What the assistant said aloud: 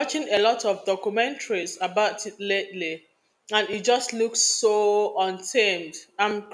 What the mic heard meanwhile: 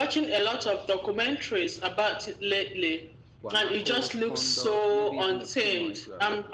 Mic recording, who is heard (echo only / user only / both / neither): both